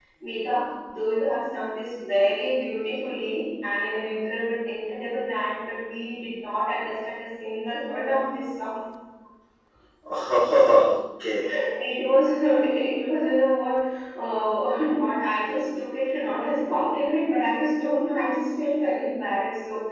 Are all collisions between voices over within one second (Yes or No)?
Yes